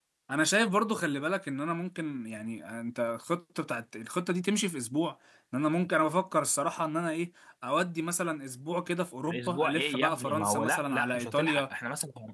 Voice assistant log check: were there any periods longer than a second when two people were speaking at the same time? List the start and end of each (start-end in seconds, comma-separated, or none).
9.3-11.6